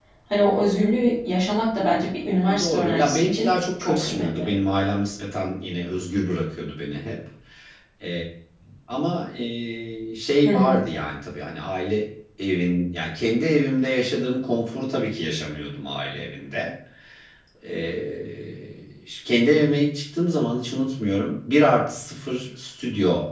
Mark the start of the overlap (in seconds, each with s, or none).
2.6 s